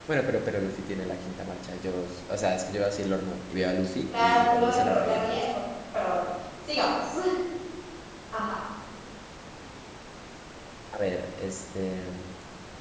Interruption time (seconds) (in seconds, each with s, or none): 4.1 s